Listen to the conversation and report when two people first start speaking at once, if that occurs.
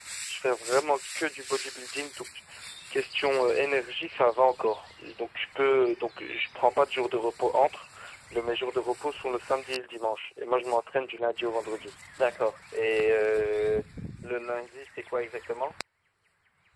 none

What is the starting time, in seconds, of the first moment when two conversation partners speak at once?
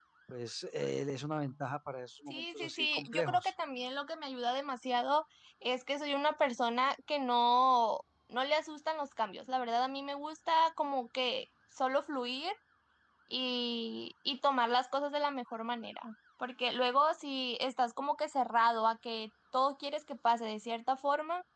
2.3 s

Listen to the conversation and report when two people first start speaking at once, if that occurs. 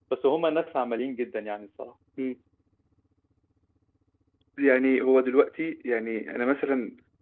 none

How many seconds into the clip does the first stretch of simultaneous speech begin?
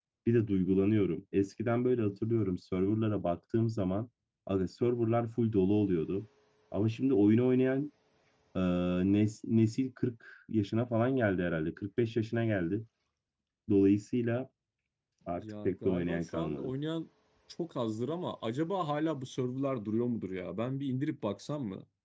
15.4 s

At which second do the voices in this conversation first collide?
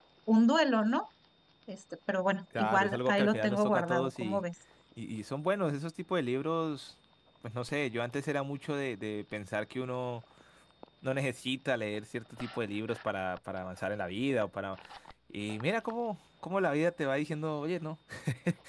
2.6 s

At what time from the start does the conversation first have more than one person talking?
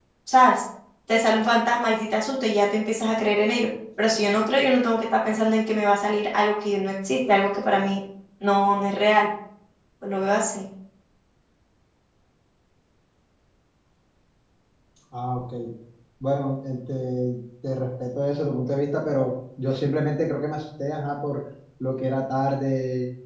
none

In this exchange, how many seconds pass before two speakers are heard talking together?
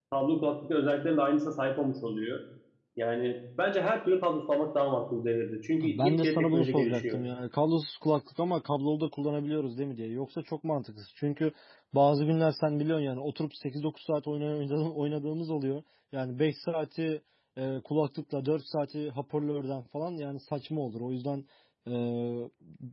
5.8 s

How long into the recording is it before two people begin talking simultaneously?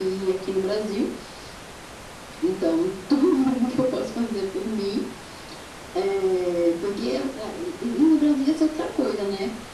none

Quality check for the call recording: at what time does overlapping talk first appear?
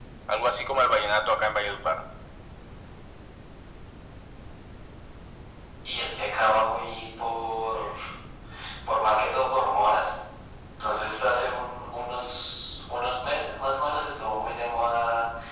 none

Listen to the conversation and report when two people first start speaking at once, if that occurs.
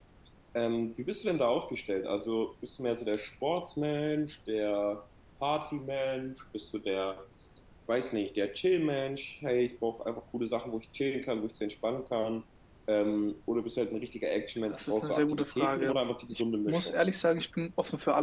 14.7 s

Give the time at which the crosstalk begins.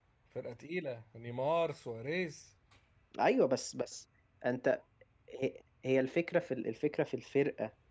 none

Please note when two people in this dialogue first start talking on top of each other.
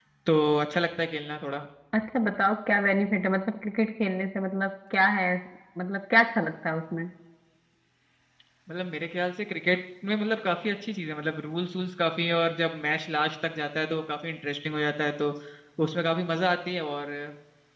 none

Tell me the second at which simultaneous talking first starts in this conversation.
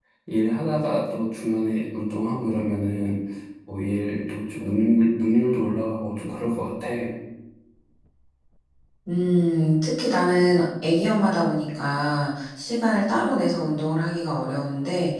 none

